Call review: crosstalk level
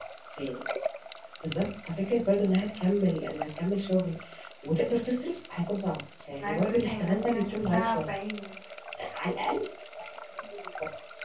present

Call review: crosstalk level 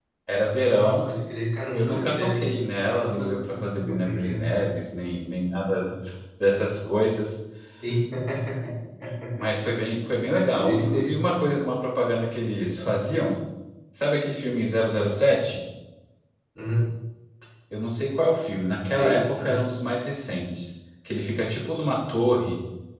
present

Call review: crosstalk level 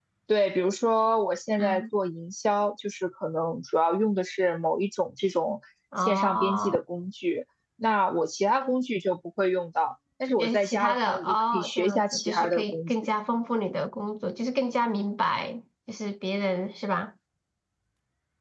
present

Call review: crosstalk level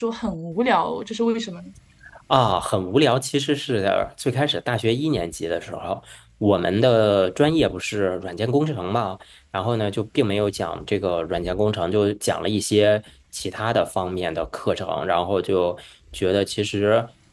none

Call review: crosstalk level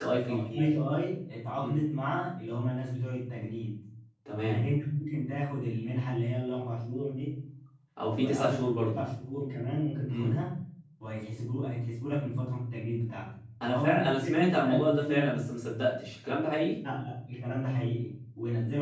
present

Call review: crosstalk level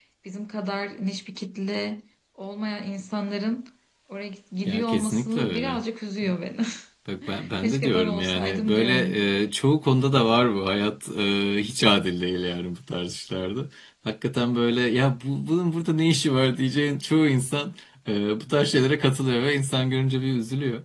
present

